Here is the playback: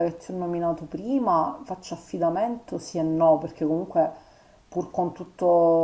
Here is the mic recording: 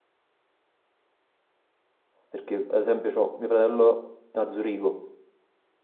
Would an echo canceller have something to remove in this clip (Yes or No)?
No